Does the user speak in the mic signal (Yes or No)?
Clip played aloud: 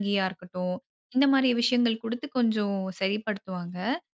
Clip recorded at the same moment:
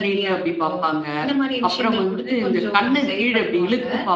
Yes